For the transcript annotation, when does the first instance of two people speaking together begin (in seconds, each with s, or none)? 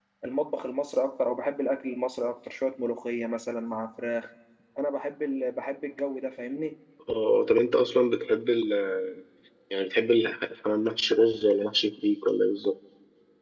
none